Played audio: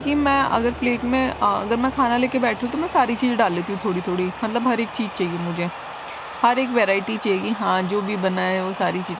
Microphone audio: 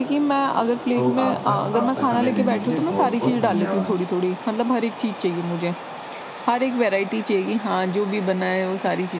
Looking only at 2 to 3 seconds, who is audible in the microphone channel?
both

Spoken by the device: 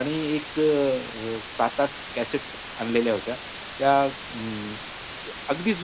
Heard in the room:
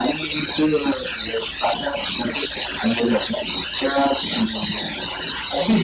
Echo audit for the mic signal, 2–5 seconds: echo only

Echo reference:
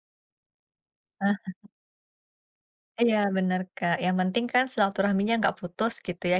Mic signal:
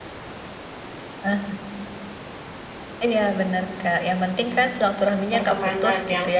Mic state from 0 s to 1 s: neither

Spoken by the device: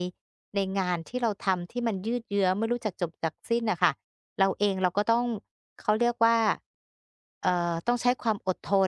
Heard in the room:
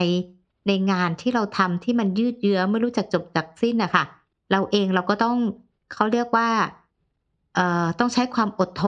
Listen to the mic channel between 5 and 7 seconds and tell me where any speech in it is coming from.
echo only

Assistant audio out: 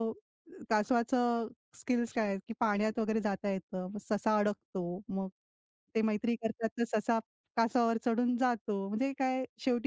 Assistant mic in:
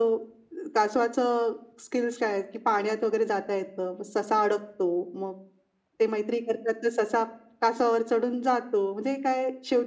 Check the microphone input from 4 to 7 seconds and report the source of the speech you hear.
echo only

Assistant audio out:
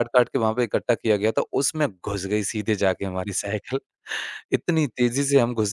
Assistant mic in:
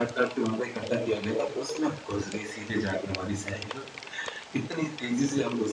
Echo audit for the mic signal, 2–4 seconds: echo only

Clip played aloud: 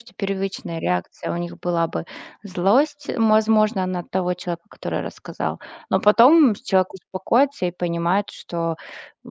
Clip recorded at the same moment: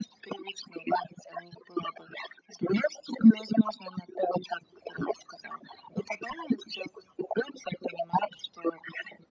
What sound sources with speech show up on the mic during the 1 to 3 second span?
echo only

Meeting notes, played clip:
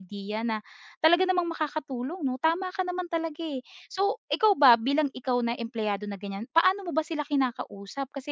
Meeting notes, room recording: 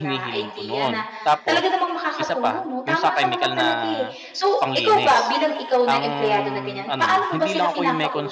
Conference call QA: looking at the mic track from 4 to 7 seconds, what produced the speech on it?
both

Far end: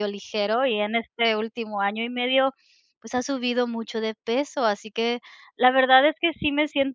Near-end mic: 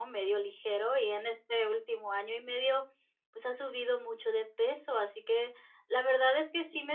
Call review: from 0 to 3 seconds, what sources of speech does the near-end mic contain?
echo only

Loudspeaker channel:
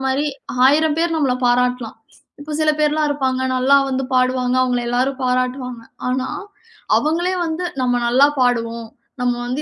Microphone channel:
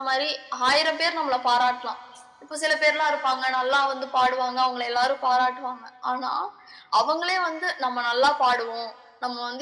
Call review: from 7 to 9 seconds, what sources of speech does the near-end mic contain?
echo only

